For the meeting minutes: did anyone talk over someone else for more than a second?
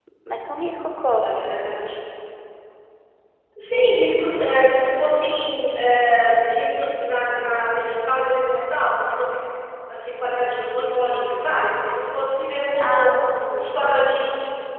No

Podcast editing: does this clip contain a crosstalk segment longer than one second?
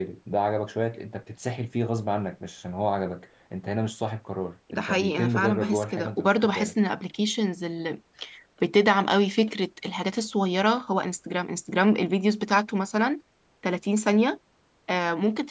Yes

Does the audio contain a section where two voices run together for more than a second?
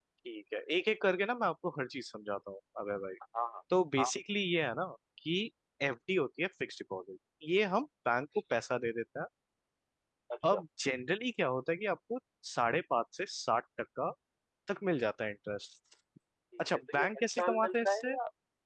Yes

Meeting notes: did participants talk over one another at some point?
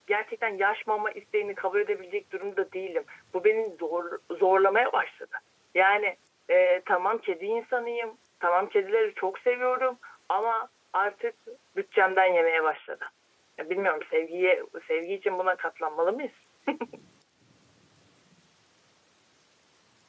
No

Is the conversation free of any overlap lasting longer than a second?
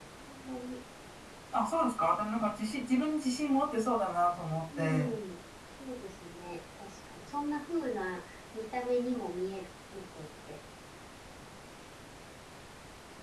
Yes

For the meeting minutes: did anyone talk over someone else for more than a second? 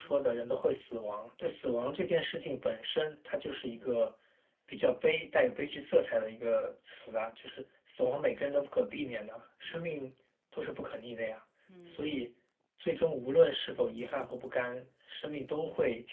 No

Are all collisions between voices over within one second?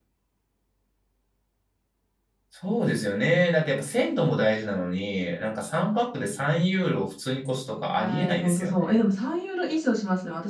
No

